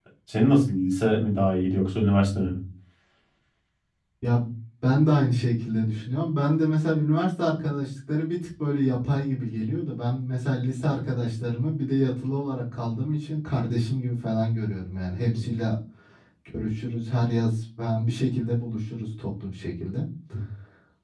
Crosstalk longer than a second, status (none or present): none